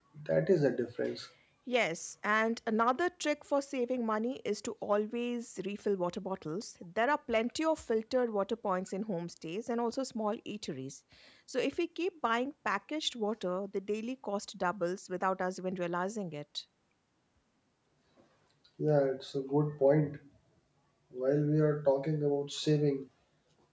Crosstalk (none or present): none